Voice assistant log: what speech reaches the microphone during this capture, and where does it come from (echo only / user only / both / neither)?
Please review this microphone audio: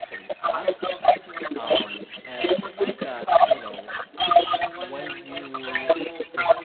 both